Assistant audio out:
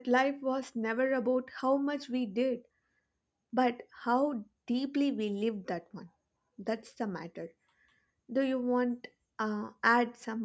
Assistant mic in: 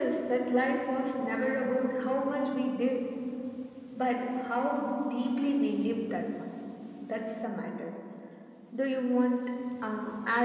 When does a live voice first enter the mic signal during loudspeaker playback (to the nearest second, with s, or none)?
none